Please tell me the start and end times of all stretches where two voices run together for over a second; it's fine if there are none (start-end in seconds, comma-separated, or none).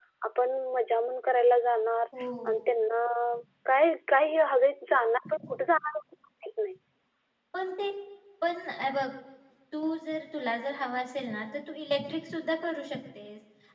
none